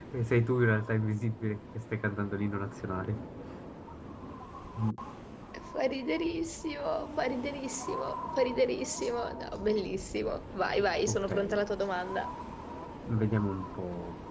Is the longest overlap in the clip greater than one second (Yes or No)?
No